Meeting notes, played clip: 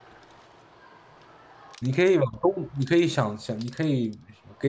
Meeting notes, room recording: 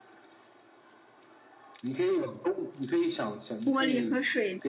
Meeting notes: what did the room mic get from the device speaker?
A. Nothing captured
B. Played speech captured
B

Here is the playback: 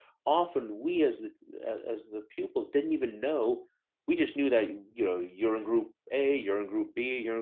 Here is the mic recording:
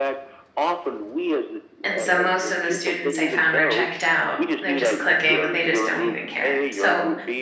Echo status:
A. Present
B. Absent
A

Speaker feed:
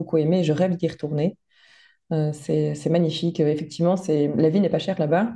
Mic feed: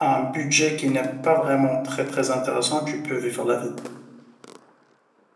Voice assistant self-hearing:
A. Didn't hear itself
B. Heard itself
A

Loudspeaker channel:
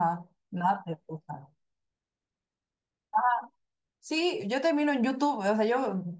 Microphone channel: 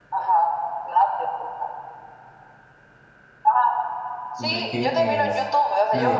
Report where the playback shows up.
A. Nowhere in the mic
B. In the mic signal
B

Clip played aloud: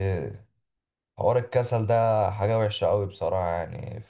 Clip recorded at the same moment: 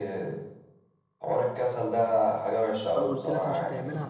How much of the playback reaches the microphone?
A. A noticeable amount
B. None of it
A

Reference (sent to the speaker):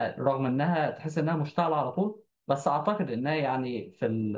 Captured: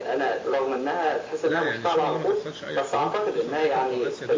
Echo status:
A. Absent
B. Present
B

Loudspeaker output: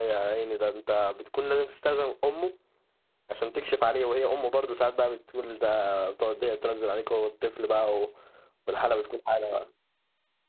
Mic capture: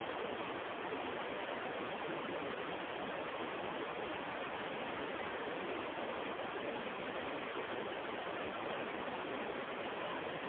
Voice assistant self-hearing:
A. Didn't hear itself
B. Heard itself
A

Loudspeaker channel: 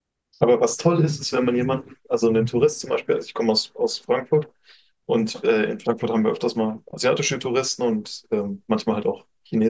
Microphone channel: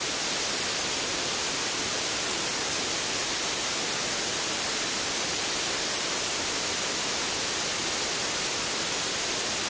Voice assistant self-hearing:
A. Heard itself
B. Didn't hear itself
B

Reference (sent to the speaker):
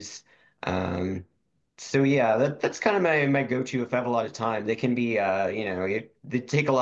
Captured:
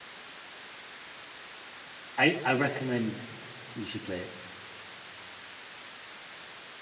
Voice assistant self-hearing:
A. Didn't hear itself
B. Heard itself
A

